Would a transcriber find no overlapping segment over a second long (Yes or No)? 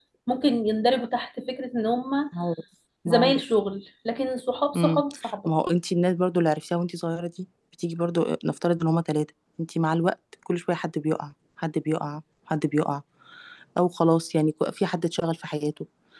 Yes